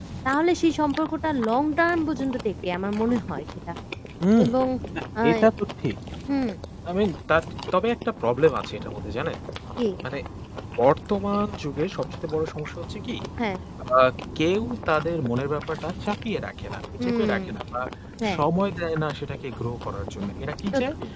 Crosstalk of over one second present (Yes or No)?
No